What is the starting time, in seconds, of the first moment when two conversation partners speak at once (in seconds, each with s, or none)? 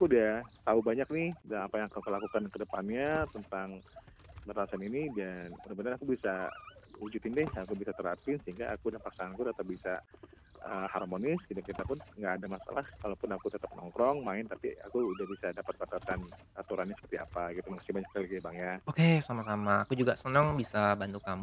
none